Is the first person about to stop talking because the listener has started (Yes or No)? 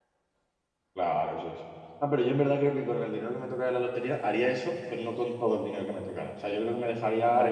No